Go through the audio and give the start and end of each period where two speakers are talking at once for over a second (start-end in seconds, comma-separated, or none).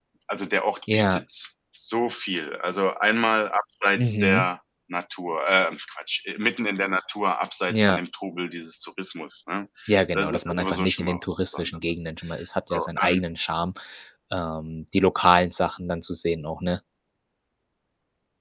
10.1-12.1